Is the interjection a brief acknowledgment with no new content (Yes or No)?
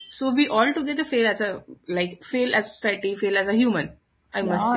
No